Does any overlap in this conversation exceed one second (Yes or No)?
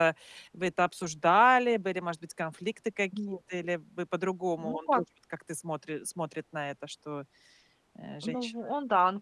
No